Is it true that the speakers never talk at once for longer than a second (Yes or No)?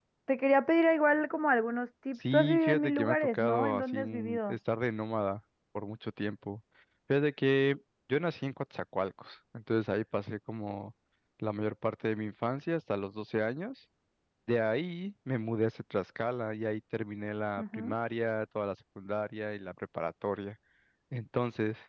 No